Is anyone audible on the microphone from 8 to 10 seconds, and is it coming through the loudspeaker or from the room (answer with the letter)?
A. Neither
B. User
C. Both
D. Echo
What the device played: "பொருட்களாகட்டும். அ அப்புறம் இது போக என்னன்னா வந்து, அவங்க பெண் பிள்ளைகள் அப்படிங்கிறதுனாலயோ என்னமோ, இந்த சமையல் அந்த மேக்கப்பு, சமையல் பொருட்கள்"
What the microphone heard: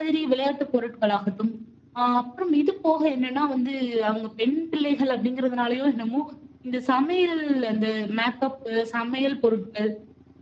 D